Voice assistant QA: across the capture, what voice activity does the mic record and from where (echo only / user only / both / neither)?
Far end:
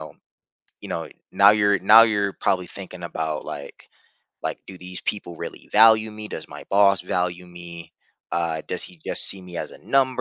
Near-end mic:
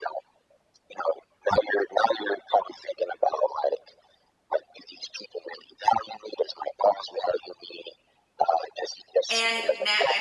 both